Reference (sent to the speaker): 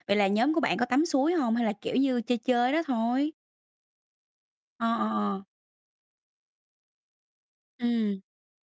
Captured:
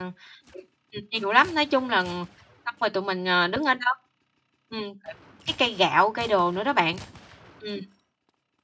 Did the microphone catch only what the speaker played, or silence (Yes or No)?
No